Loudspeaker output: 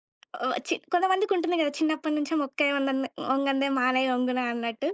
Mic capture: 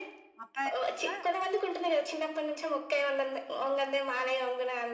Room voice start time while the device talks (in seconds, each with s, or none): 0.4 s